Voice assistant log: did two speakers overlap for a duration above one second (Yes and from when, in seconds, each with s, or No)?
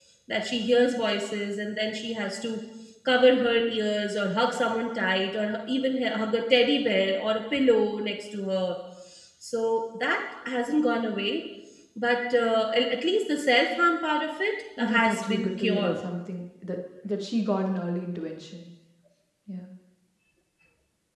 Yes, from 14.8 s